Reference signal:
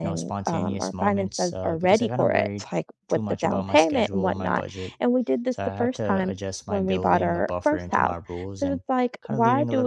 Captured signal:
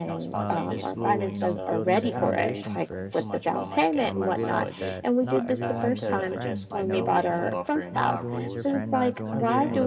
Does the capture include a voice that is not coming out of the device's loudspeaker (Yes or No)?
Yes